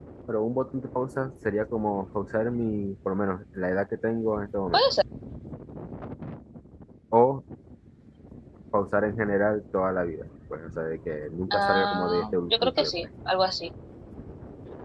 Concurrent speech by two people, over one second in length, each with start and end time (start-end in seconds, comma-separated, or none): 11.5-12.9